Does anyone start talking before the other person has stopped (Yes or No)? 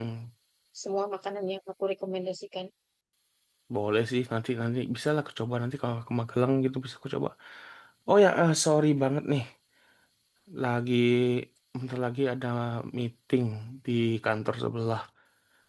No